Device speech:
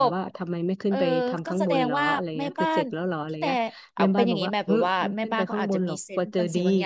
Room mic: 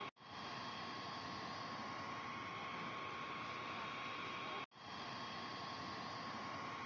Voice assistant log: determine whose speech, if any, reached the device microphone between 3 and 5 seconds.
neither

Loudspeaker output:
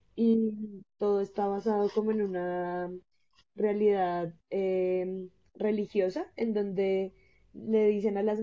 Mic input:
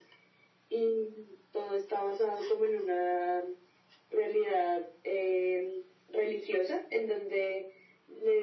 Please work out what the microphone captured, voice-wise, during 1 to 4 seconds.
echo only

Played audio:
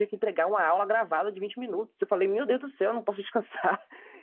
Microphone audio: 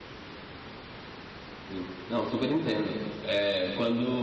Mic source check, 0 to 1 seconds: neither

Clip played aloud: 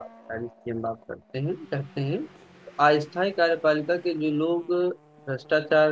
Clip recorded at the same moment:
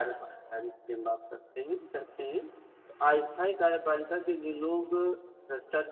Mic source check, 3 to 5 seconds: echo only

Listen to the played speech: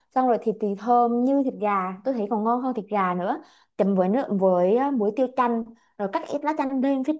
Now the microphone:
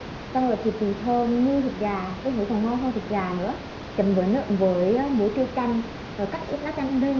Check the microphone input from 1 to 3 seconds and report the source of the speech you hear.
echo only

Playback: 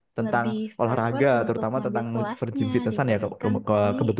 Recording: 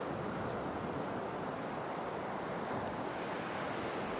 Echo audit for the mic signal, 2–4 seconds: neither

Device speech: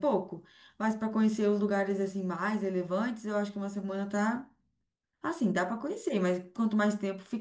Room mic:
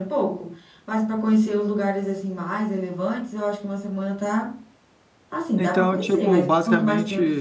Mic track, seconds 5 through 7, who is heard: both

